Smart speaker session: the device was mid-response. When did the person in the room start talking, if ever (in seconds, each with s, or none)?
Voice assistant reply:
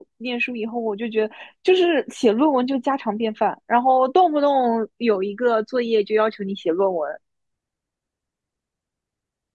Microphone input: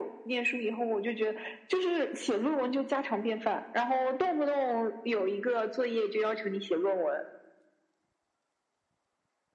none